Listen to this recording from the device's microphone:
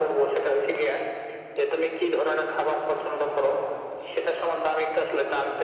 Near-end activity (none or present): none